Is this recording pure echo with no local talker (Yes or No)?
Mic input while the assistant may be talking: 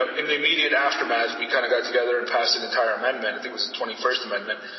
Yes